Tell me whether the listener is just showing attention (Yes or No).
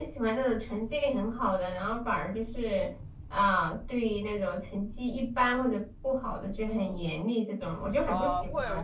No